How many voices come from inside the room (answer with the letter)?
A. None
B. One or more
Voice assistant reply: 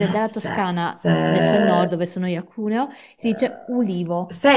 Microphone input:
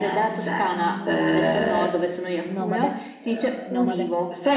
B